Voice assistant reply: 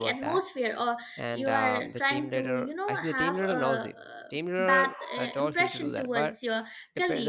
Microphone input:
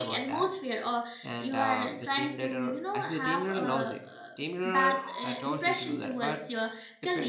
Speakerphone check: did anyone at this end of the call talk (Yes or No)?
No